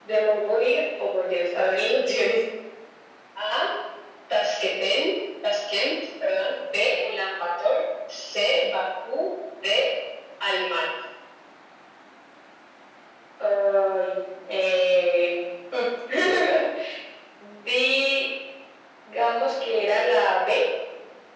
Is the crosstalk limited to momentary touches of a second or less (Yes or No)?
Yes